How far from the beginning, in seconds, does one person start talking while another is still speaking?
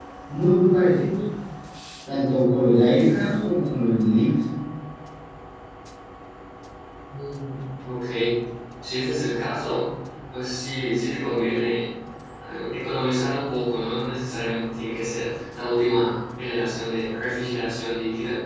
none

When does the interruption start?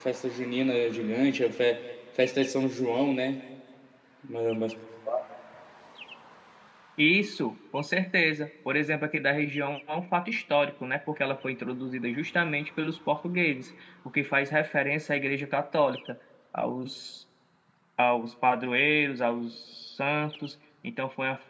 none

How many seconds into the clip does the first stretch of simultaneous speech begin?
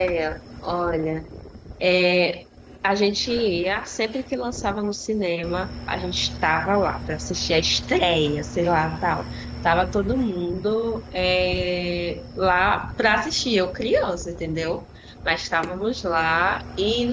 none

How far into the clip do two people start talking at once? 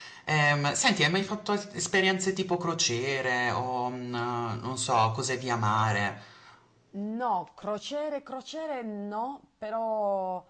none

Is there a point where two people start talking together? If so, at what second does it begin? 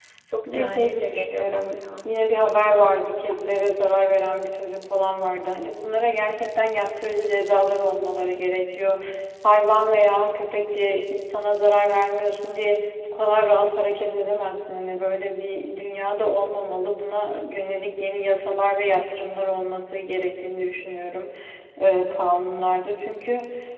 0.5 s

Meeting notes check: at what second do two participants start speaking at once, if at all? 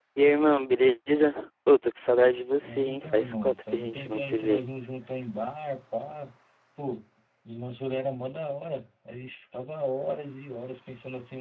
2.6 s

